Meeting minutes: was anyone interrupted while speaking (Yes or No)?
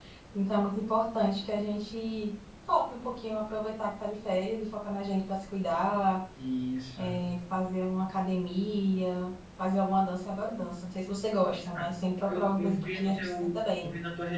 Yes